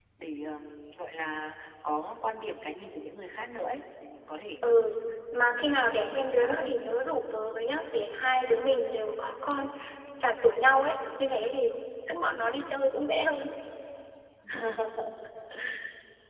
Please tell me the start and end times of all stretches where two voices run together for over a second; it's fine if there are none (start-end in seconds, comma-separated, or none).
5.4-6.7